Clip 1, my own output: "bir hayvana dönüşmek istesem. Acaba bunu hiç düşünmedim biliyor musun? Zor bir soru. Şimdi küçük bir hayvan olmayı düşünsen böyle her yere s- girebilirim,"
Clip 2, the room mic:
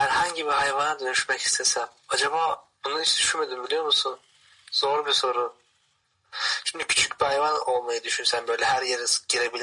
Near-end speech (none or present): none